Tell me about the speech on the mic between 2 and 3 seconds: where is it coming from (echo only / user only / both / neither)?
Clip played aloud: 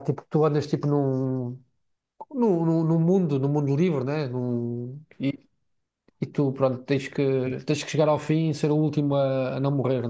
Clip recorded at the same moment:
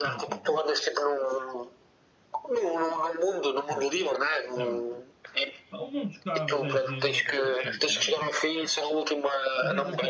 echo only